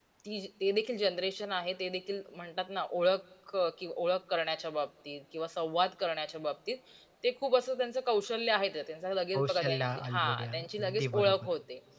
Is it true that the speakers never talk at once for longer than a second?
No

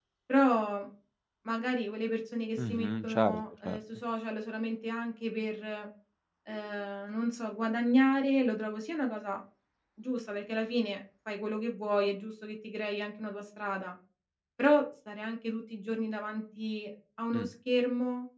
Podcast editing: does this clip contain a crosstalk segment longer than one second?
Yes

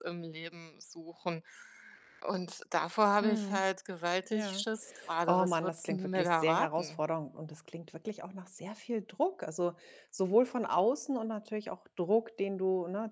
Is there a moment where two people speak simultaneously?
Yes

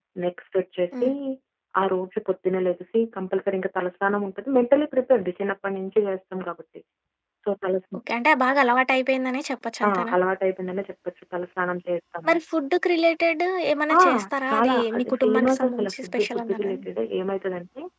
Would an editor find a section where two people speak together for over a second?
Yes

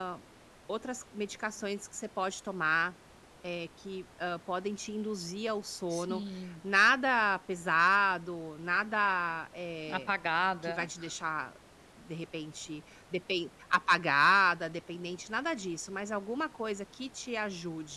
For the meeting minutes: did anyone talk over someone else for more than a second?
No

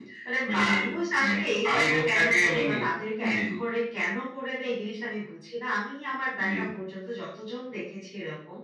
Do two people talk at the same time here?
Yes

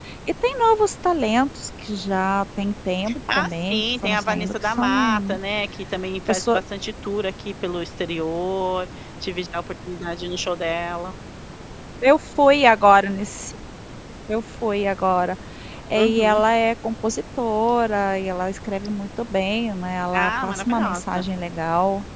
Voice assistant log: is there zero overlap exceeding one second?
No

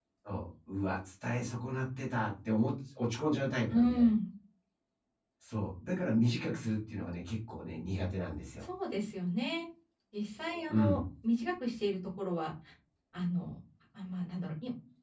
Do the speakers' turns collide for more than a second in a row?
No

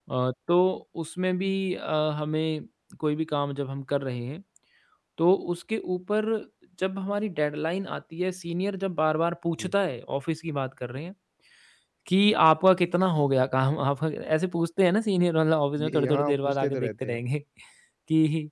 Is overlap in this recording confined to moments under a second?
No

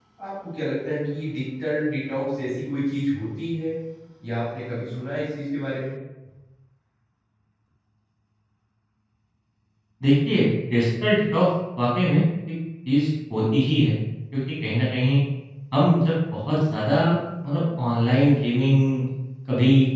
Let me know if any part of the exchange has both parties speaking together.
No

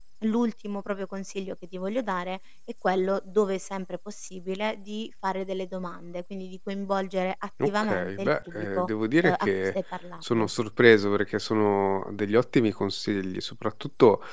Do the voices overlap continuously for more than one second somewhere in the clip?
Yes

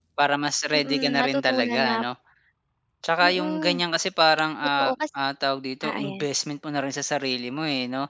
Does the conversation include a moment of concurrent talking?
Yes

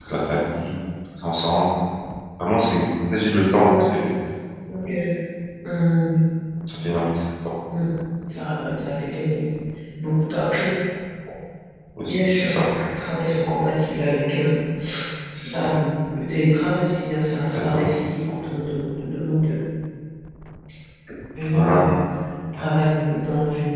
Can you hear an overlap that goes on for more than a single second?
No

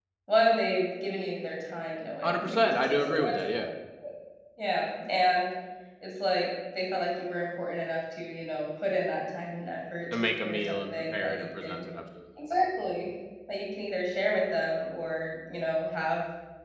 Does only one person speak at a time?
No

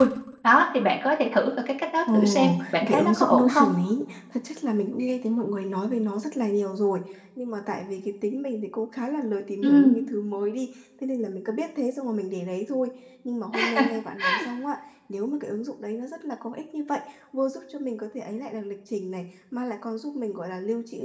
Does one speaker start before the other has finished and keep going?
Yes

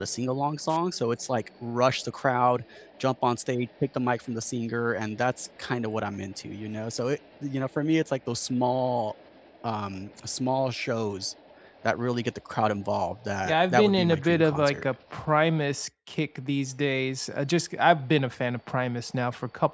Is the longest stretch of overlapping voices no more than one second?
No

